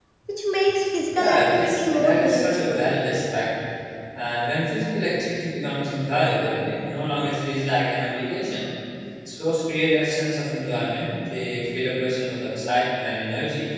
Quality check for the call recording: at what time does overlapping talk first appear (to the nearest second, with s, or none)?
1 s